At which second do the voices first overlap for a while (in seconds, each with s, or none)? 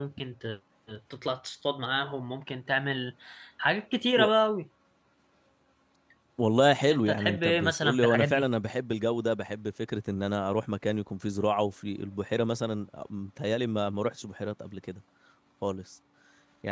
6.9 s